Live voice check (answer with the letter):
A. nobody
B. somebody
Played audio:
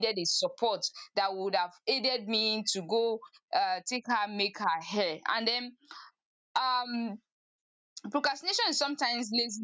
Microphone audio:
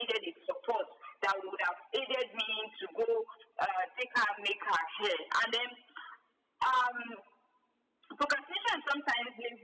A